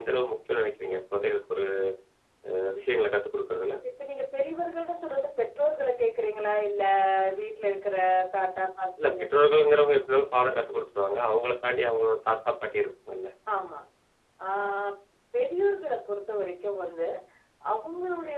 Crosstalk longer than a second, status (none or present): none